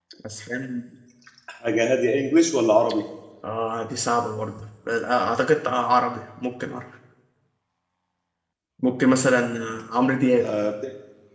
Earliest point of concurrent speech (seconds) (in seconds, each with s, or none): none